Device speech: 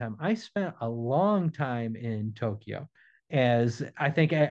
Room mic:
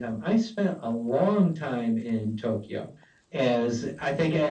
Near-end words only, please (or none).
none